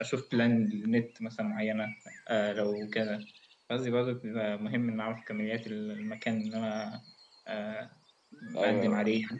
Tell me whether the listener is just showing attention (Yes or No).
No